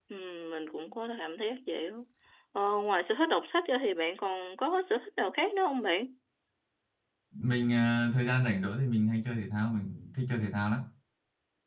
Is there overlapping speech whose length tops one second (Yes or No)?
No